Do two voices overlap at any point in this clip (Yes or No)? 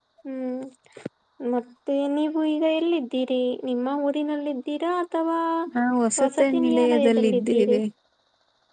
Yes